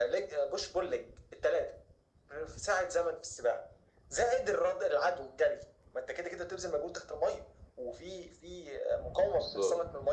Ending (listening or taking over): listening